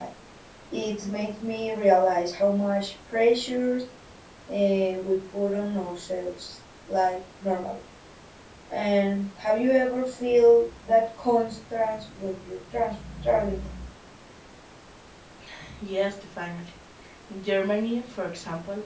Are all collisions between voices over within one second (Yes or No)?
Yes